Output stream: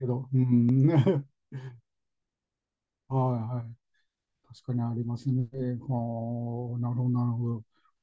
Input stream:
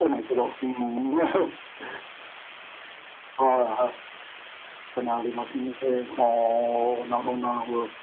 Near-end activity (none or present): none